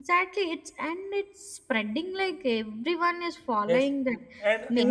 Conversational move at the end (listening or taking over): taking over